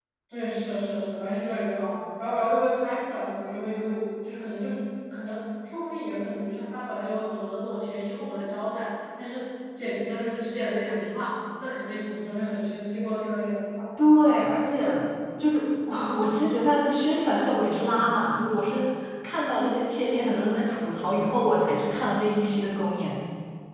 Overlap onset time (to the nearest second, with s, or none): none